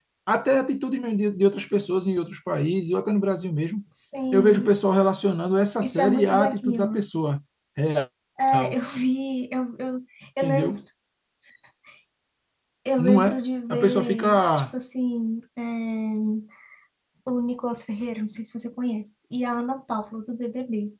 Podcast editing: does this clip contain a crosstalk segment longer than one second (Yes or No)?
Yes